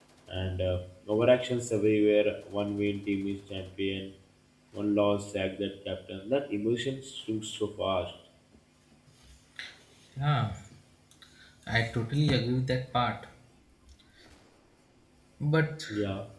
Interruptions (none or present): none